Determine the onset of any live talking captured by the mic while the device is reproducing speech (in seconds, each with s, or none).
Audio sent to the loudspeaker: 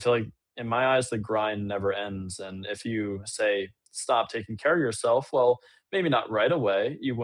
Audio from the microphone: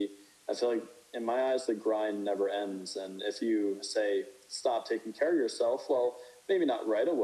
none